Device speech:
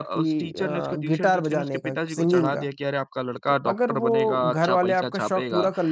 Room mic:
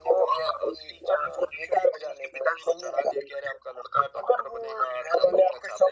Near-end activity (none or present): none